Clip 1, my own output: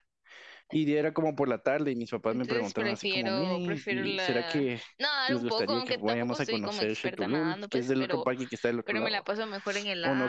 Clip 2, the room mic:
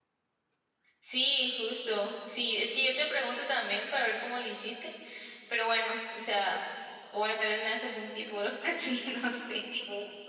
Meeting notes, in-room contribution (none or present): present